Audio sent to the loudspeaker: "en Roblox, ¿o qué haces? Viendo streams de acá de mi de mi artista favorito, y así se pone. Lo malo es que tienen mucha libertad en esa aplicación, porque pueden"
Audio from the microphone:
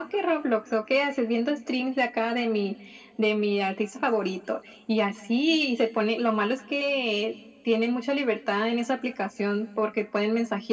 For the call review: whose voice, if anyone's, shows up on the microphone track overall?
echo only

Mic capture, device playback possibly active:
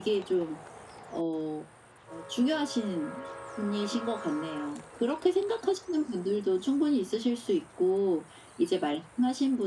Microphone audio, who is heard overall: echo only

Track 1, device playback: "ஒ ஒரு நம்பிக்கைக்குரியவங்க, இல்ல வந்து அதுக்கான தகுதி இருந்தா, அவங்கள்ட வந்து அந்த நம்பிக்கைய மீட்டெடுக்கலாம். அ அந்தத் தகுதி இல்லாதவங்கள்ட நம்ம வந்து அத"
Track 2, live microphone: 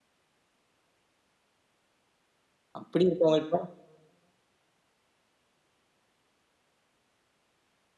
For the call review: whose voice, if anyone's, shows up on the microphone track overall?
user only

